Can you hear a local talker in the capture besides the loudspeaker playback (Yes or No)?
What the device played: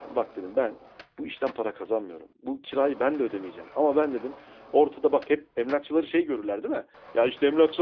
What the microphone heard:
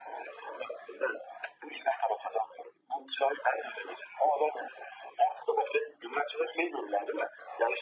No